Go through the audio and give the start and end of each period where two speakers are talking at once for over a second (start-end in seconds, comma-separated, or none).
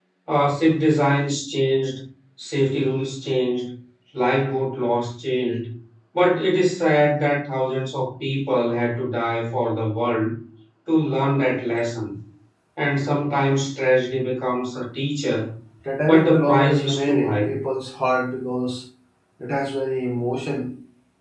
16.0-17.6